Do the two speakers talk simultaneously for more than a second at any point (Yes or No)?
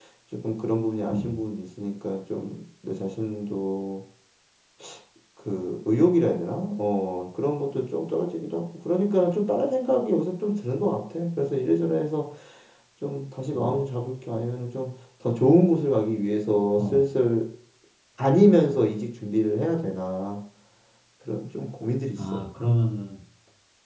No